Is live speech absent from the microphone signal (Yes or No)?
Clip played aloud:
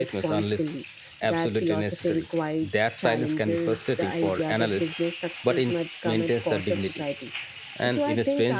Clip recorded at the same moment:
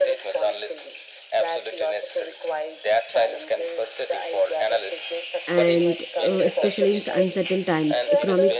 No